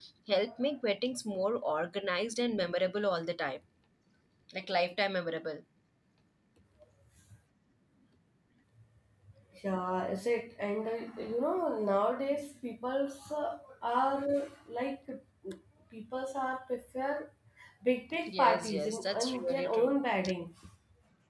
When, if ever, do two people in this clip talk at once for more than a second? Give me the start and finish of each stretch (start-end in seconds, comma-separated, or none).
18.3-19.9